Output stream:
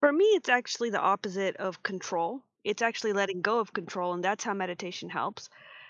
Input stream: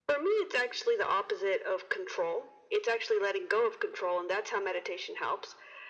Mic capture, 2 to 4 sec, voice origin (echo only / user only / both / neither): echo only